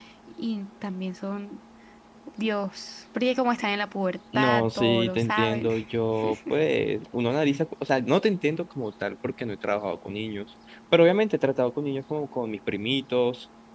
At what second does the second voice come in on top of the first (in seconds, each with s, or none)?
4.3 s